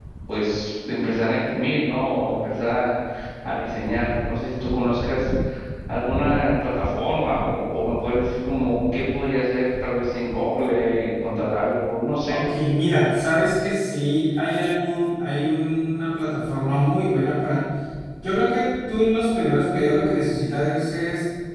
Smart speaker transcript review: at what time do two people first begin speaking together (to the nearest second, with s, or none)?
none